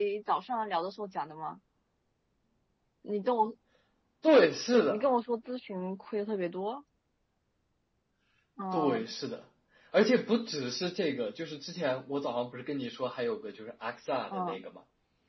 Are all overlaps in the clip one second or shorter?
Yes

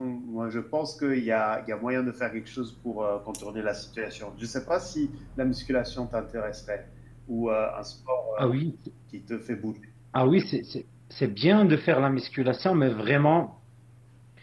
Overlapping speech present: No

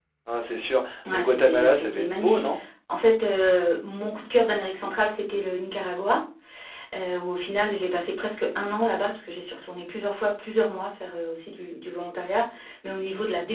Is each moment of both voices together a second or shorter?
No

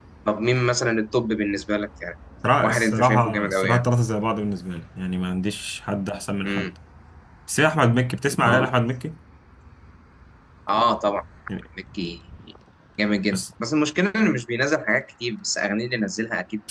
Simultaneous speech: Yes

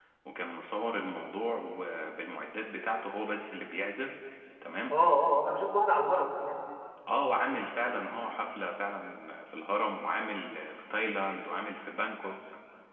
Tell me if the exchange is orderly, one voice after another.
Yes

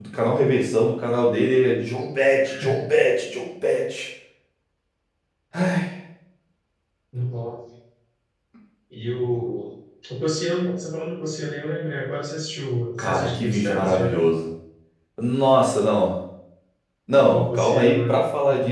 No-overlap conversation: No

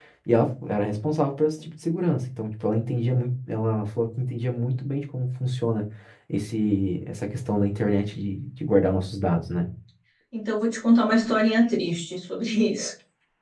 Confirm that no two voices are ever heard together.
Yes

